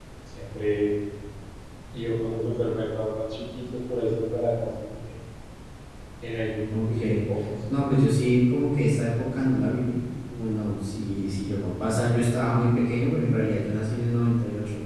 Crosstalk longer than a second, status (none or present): none